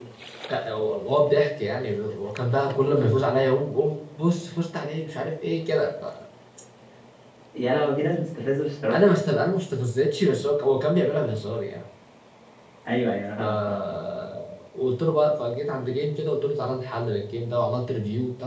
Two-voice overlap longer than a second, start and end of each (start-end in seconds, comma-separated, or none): none